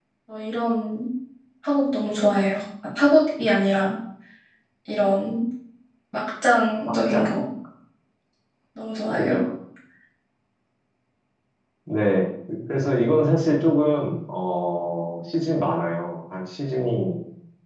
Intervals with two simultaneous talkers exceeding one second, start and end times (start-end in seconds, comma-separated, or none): none